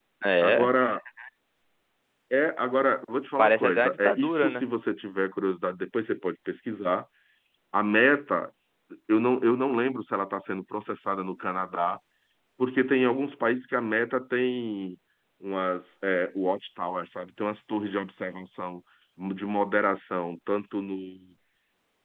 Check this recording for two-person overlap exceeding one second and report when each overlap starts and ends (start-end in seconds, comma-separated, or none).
3.4-4.6